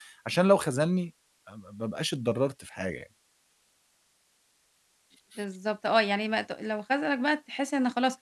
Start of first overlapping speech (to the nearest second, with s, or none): none